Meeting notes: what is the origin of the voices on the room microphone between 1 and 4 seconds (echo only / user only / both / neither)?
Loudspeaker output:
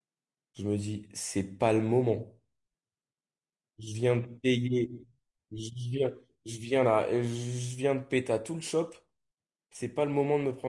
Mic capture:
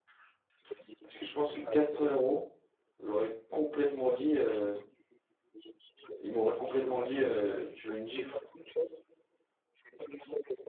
both